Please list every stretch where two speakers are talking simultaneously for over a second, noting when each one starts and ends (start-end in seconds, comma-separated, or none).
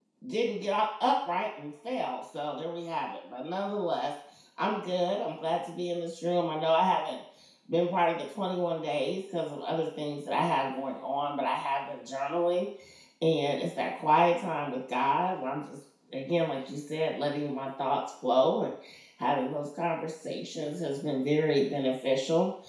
none